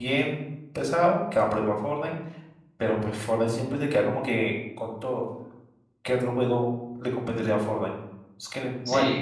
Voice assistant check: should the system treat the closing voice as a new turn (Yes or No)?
Yes